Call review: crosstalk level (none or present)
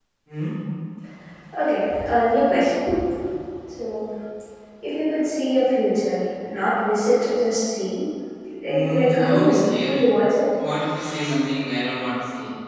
present